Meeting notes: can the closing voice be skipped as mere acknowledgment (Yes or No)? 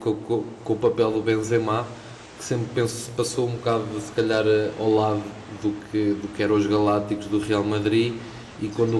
Yes